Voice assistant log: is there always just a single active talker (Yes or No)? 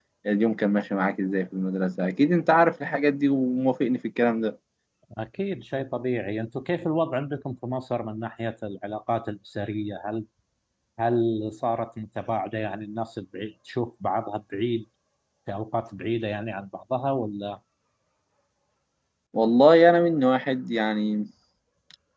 Yes